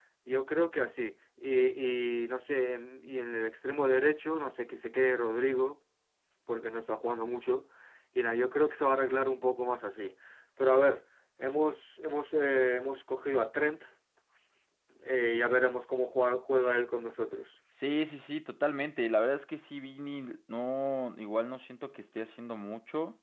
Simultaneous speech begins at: none

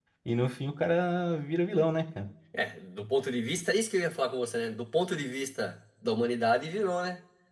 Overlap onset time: none

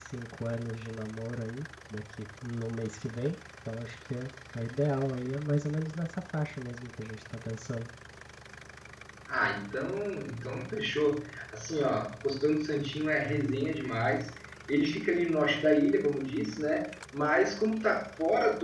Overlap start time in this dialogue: none

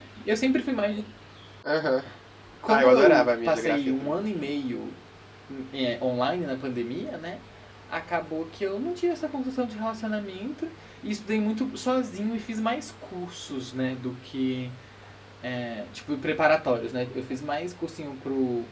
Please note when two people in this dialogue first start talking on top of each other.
2.7 s

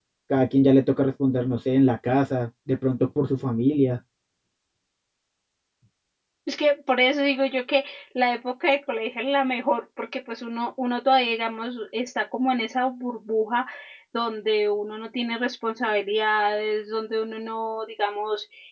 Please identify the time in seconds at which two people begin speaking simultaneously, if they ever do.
none

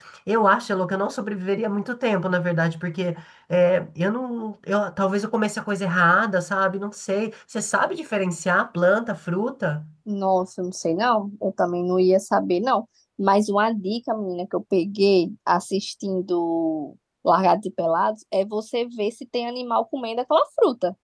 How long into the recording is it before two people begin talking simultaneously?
none

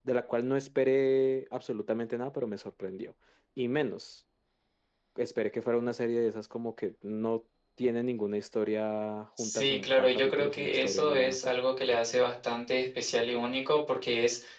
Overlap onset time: 9.4 s

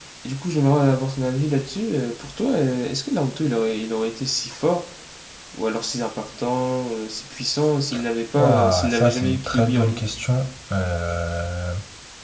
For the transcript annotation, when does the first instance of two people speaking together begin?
8.3 s

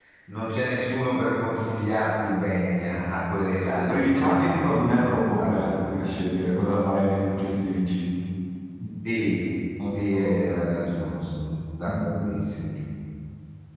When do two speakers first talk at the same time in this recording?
3.3 s

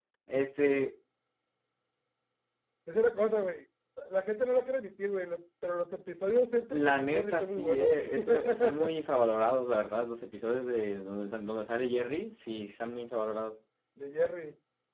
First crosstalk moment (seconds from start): 6.7 s

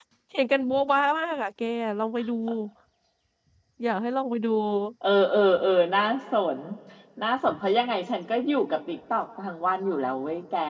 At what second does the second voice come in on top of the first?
none

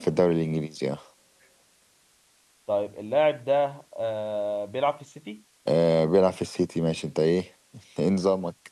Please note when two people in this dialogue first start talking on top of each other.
none

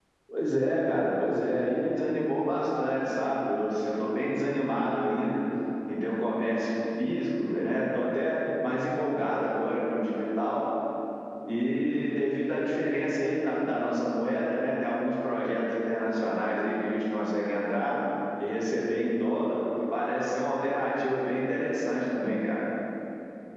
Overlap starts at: none

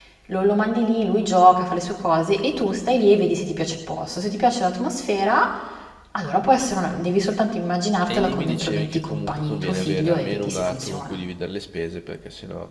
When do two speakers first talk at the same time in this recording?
8.0 s

